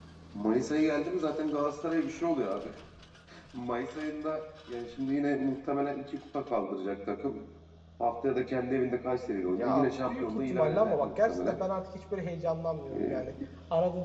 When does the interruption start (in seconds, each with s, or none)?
9.5 s